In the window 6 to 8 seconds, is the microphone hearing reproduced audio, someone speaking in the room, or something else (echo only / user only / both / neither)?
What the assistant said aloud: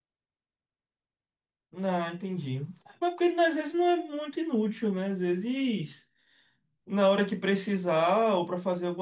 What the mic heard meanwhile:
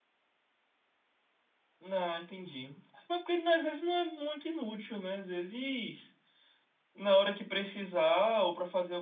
echo only